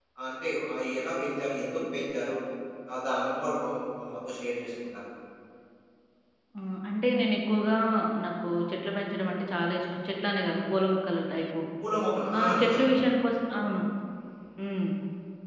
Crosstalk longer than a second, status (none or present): none